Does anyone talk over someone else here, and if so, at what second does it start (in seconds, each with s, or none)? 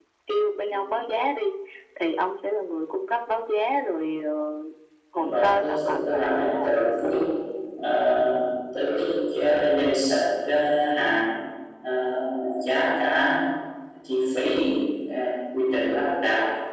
5.2 s